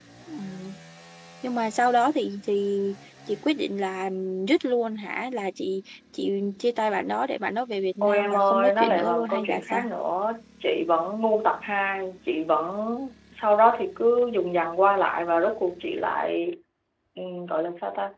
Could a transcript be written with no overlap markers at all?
No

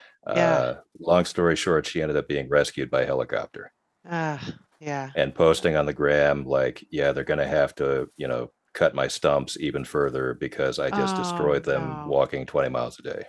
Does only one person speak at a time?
No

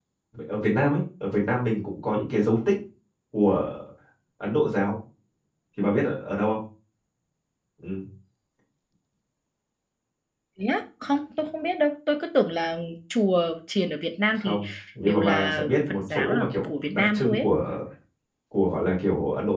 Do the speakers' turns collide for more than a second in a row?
Yes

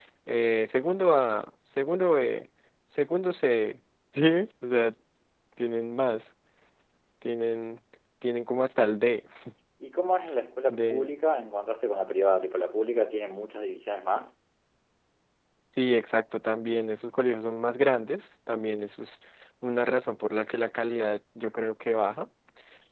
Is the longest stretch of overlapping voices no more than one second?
Yes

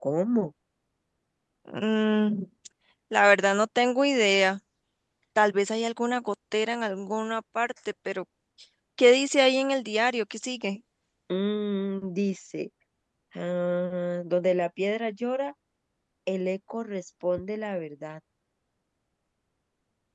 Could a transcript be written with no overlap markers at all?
Yes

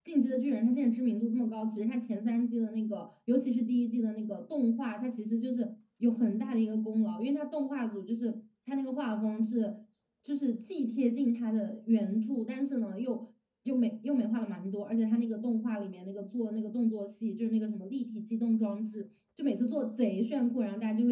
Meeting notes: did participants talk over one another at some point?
No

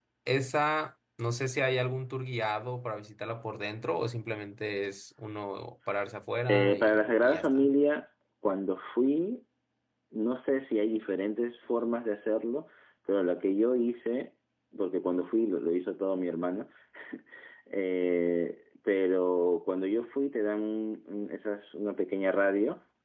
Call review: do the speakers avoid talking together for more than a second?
No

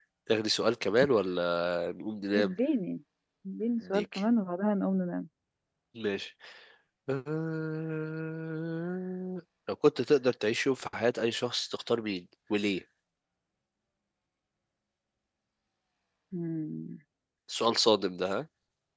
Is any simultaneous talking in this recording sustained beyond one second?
No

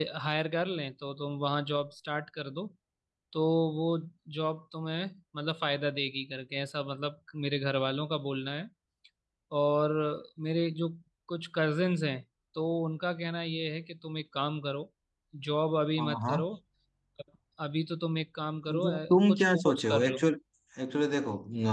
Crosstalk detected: Yes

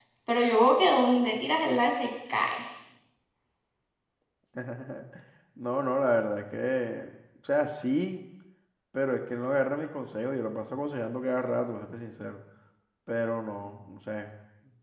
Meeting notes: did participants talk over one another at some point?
No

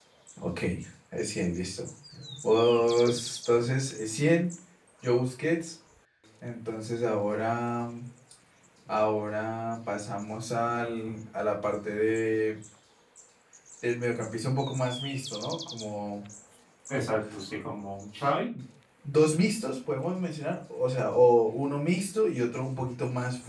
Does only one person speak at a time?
Yes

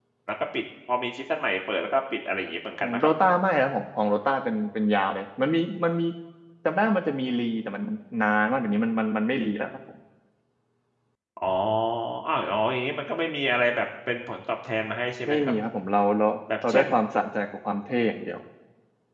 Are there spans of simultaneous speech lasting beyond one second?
No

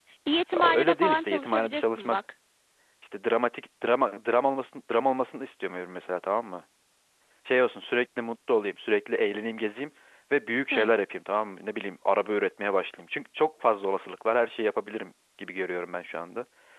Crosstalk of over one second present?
Yes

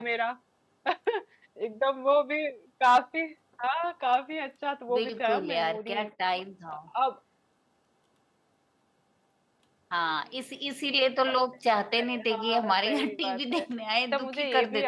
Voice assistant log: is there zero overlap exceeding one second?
No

